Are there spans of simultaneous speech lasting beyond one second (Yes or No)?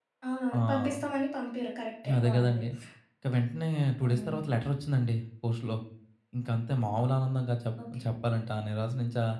No